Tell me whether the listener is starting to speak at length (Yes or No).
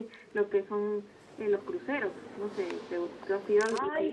Yes